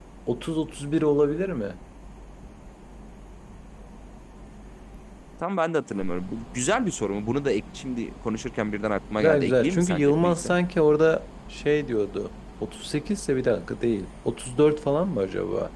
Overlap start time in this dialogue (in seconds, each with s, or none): 9.2 s